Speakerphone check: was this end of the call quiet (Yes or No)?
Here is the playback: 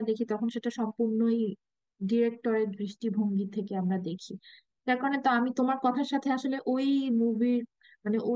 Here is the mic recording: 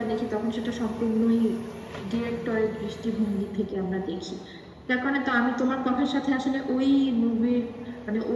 Yes